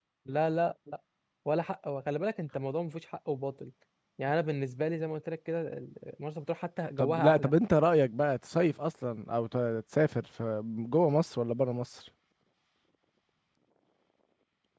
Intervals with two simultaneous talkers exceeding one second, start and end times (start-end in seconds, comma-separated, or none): none